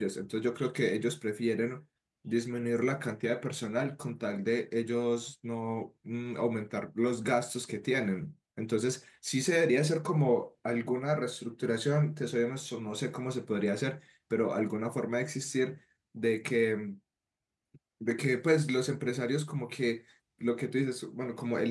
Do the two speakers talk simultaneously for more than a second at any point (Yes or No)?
No